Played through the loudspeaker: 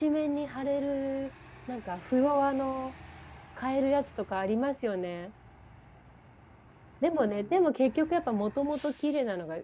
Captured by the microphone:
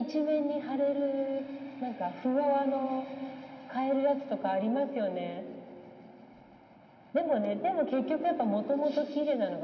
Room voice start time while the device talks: none

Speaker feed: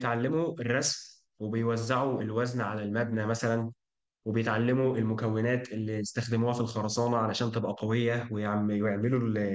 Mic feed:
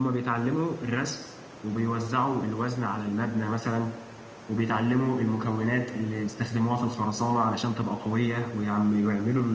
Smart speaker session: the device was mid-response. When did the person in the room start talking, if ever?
none

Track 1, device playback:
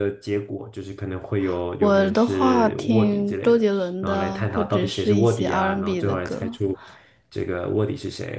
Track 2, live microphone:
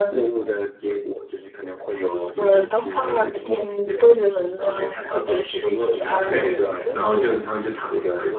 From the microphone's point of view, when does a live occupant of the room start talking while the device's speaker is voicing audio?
6.2 s

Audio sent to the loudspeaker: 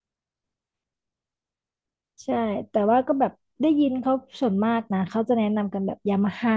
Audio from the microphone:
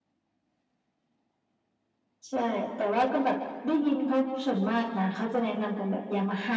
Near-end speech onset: none

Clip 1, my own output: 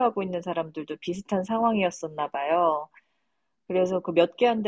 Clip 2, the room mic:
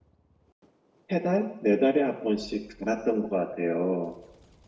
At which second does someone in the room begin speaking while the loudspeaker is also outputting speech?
1.1 s

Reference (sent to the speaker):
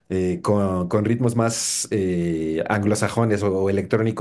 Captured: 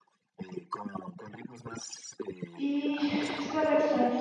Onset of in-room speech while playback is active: 2.5 s

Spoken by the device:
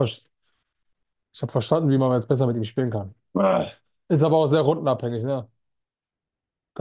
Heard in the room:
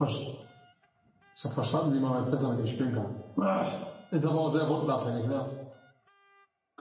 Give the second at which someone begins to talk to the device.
none

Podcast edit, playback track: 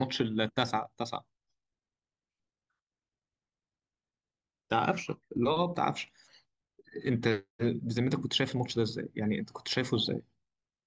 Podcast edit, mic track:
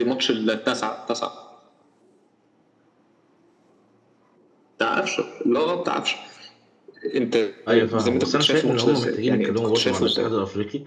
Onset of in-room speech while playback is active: 7.7 s

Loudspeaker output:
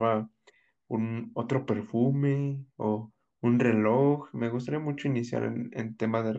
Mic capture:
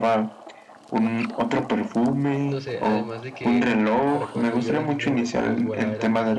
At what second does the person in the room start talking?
2.4 s

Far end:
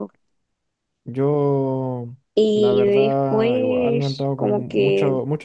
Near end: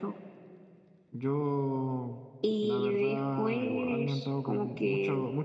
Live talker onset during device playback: none

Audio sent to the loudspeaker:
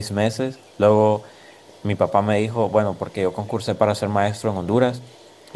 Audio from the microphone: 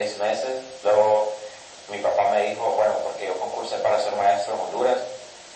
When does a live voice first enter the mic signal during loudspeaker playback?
none

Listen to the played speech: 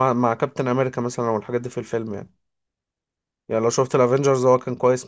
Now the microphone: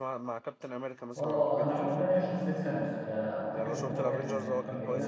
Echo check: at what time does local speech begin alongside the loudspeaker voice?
1.1 s

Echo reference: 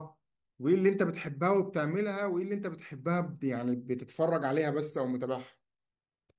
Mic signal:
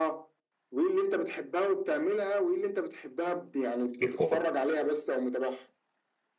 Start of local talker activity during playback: 4.0 s

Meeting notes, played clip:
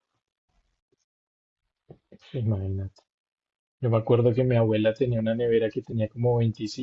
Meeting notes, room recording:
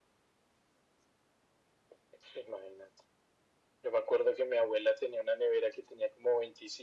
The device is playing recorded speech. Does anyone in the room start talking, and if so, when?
none

